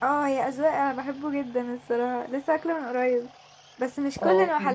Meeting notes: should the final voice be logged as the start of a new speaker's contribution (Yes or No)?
No